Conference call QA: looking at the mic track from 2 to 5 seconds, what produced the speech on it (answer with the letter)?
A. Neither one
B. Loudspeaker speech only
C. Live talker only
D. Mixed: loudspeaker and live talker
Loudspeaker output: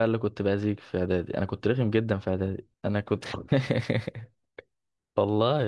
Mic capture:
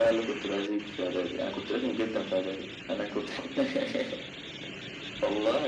B